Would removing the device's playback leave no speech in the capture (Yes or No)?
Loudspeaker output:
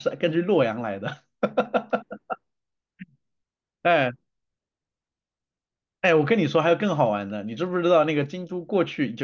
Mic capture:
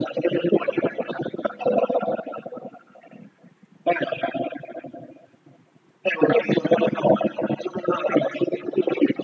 Yes